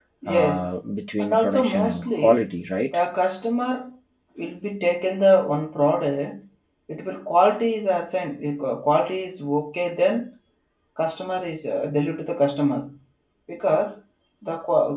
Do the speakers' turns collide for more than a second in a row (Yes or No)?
Yes